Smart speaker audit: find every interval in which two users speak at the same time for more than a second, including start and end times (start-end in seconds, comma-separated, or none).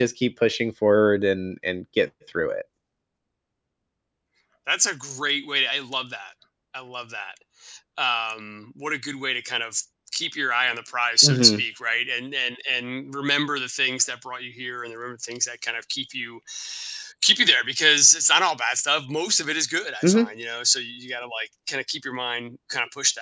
none